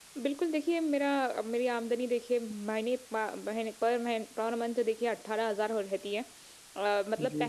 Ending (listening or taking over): listening